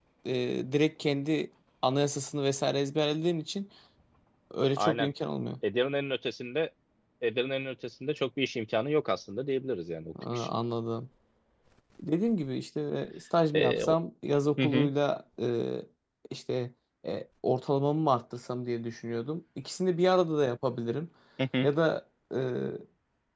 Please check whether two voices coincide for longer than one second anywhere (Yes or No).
No